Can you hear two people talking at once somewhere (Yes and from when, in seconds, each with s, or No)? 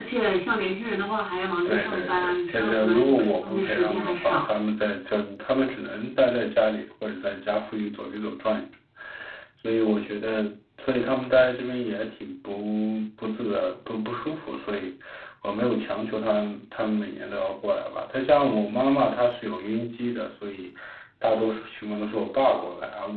Yes, from 1.6 s